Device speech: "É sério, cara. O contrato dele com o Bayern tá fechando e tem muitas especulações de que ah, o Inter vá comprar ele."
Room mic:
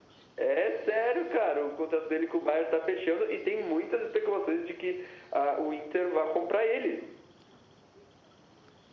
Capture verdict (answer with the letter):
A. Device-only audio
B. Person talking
A